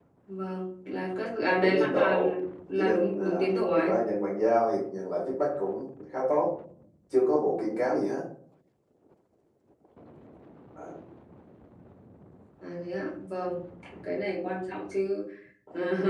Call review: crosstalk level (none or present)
present